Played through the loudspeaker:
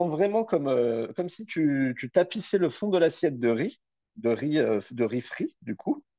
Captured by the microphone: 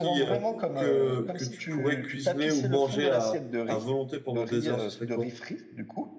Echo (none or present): present